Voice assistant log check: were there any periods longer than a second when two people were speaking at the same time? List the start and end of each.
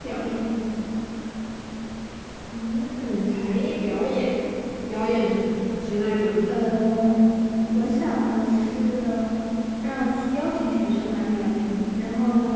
none

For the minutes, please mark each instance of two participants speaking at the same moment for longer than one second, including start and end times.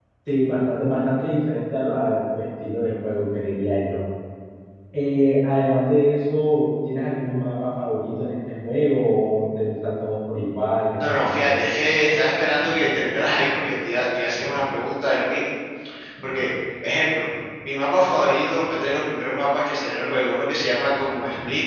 none

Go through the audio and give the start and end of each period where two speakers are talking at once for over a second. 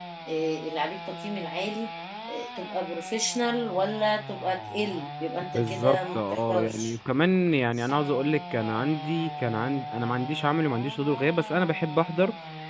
5.5-7.0

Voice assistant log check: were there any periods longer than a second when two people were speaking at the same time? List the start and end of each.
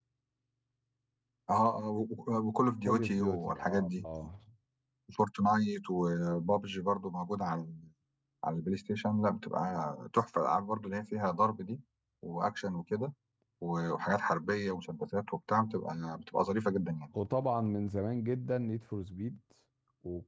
2.8-4.0

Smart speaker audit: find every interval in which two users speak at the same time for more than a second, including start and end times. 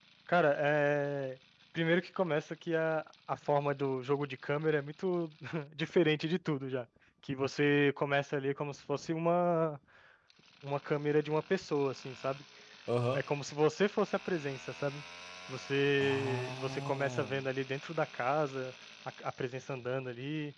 16.0-17.4

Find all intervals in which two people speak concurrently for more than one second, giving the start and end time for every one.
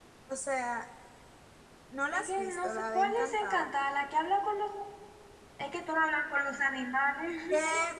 2.1-3.7

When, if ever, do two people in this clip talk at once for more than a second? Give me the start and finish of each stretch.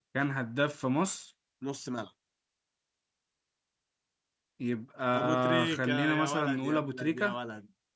5.1-7.3

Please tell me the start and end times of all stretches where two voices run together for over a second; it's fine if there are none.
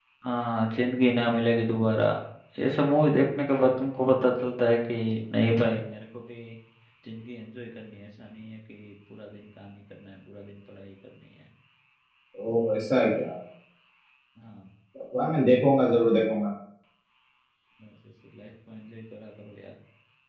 none

